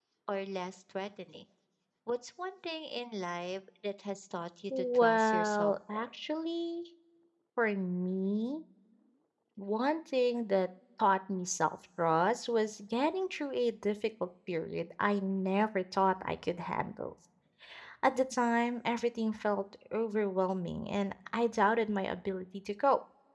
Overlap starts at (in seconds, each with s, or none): 4.7 s